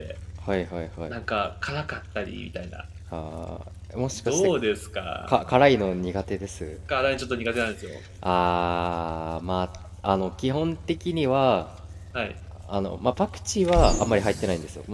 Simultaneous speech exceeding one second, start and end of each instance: none

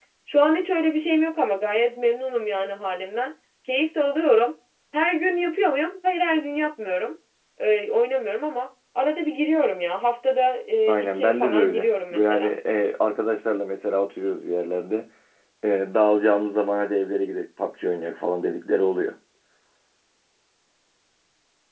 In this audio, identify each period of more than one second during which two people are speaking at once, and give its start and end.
10.9-12.5

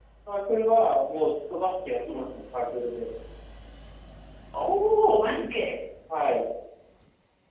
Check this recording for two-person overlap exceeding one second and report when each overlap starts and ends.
none

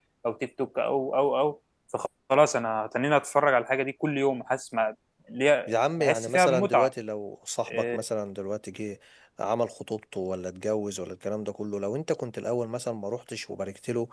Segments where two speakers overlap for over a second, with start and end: 5.7-6.9

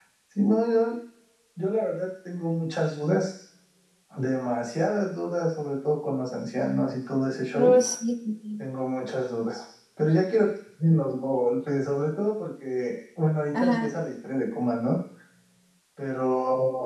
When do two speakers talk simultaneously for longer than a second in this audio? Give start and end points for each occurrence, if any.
none

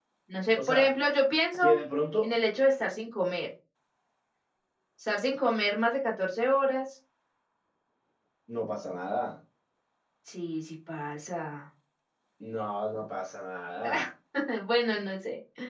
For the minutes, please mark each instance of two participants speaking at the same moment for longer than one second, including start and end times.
none

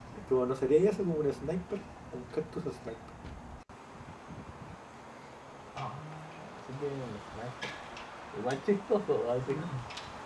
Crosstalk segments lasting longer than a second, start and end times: none

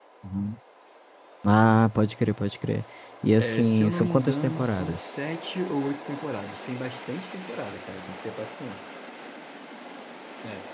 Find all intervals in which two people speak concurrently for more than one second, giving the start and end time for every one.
3.4-5.0

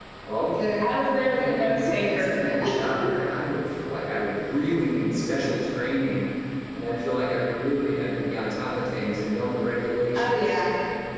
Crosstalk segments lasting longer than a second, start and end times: 0.8-2.3

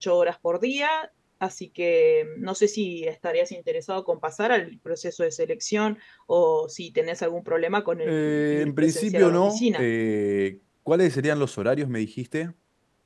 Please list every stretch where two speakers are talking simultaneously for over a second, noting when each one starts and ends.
8.0-9.8

